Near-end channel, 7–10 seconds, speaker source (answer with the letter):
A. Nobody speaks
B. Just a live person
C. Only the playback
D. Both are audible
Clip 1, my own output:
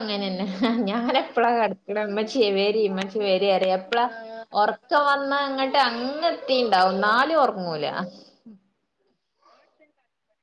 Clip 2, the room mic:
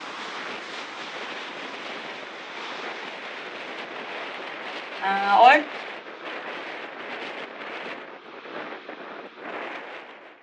A